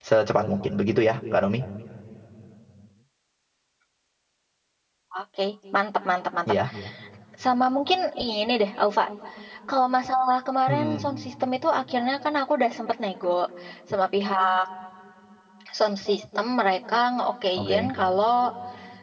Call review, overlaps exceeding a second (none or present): none